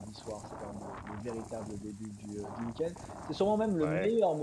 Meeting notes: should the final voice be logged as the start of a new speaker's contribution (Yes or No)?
No